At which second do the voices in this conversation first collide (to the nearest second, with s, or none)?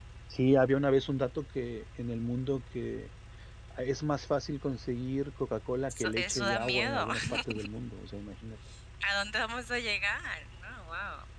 6 s